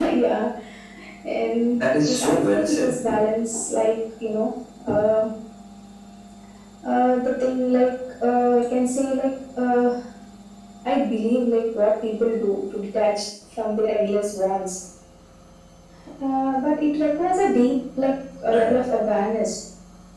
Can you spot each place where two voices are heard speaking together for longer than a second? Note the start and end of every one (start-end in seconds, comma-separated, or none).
1.7-3.0